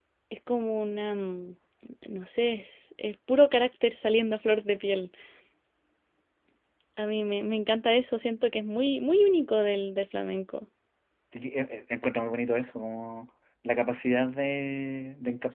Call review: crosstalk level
none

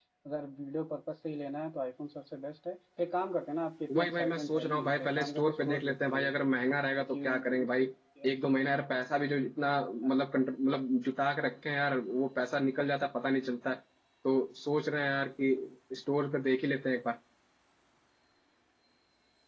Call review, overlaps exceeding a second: present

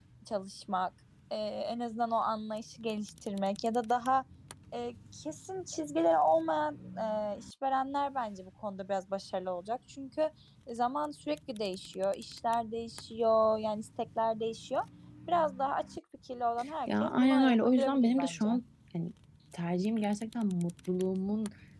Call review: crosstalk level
present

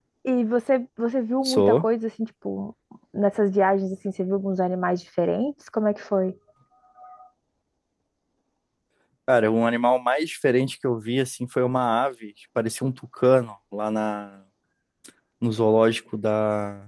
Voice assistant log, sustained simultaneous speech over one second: none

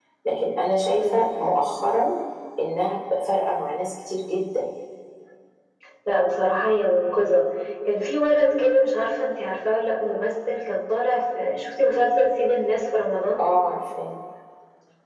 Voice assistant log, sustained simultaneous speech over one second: none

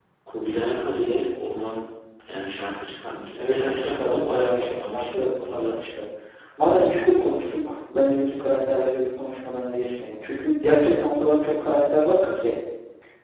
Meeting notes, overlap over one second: present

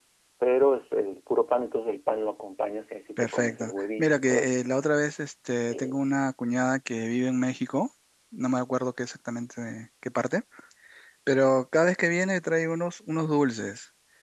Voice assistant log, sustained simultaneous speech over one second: present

